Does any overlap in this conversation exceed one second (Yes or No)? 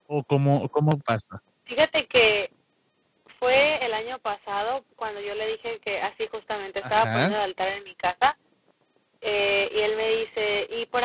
No